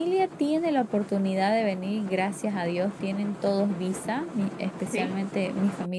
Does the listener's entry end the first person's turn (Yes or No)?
No